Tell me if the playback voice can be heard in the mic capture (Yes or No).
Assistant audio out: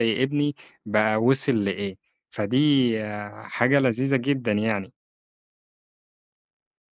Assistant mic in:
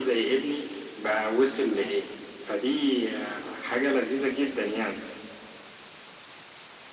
Yes